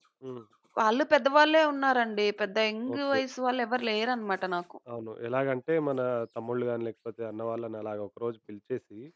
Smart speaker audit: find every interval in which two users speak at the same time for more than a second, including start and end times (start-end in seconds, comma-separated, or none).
none